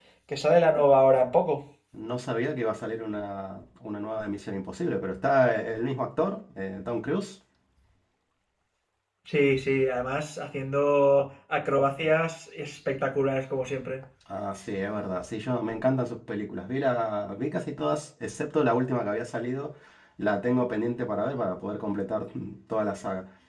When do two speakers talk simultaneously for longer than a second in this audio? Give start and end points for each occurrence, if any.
none

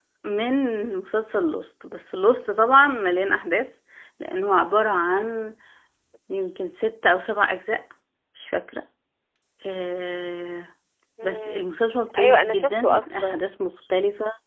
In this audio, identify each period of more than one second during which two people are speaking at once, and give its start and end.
12.2-13.4

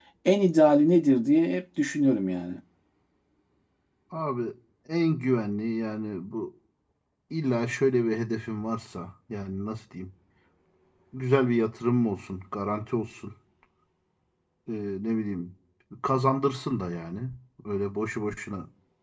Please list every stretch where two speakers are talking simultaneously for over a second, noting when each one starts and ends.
none

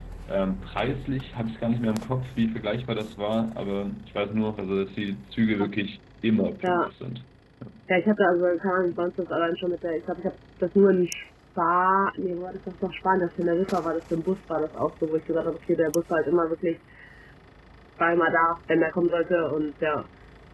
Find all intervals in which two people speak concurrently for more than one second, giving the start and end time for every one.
none

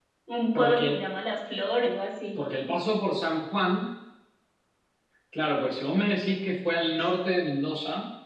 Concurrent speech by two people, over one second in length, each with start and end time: none

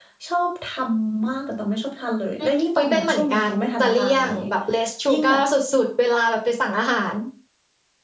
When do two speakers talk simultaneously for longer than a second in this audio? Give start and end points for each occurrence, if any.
2.4-4.4

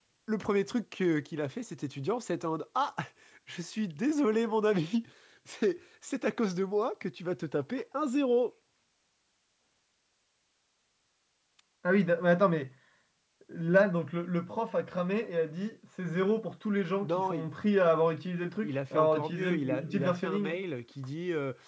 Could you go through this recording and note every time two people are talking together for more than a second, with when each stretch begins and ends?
18.6-20.6

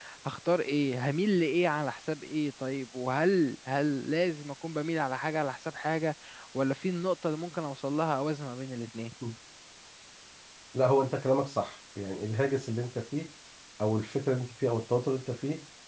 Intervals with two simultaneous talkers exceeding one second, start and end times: none

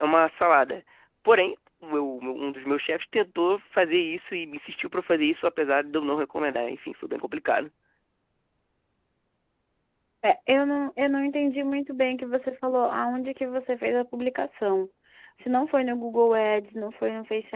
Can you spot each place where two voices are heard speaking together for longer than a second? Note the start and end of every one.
none

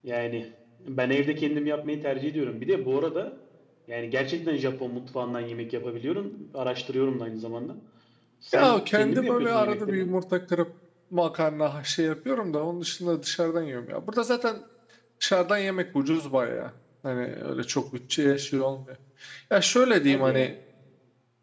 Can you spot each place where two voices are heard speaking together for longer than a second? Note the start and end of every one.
8.5-10.1

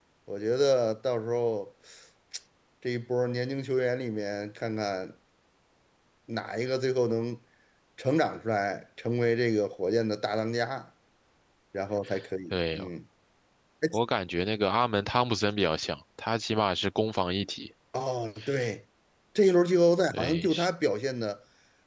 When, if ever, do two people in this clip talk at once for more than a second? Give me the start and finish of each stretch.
none

